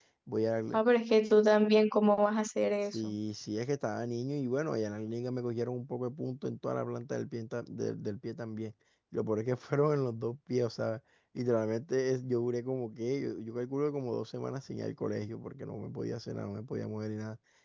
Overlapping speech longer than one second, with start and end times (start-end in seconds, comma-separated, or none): none